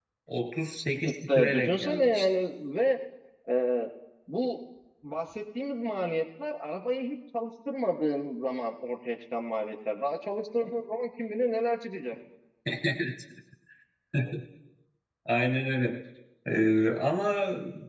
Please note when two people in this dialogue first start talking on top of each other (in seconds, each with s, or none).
1.0 s